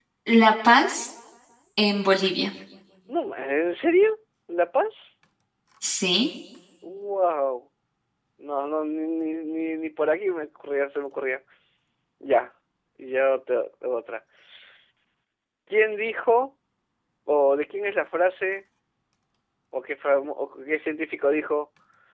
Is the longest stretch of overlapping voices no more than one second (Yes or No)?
Yes